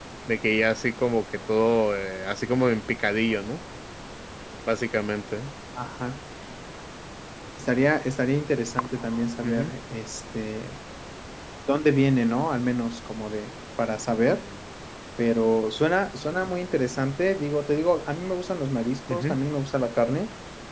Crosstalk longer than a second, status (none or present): none